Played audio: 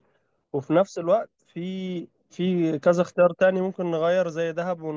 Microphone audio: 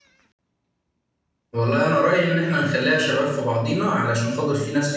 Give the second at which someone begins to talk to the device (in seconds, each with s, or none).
1.5 s